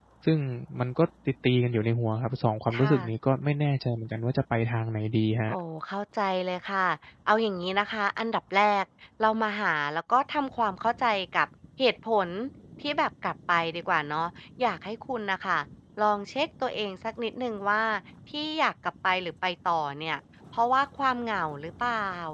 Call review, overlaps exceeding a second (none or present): none